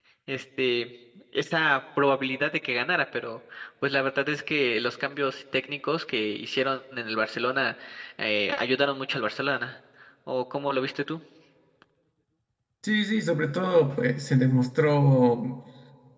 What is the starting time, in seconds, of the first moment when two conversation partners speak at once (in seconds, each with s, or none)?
none